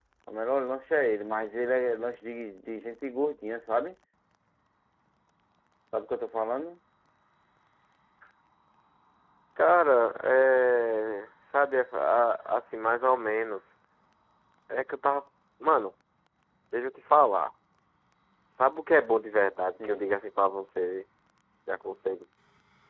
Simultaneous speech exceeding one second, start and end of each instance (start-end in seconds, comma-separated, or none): none